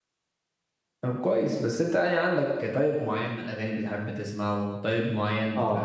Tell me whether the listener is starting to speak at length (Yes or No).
No